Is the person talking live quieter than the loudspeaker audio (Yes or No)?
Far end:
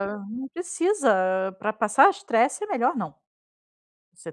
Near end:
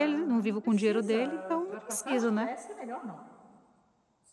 No